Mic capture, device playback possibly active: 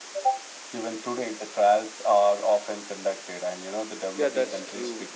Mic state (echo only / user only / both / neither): both